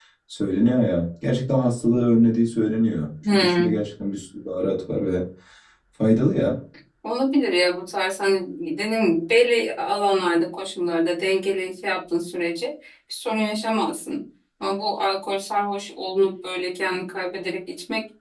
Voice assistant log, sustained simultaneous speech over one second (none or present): none